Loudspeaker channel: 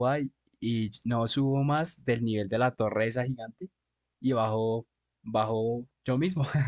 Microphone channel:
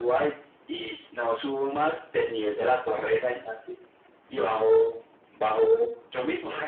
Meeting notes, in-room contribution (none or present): none